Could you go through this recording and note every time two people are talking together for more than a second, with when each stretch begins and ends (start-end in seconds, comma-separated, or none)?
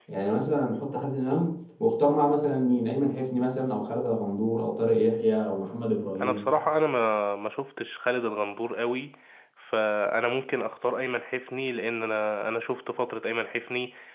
none